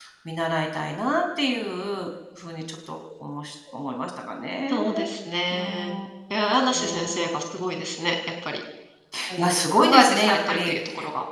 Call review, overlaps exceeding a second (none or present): present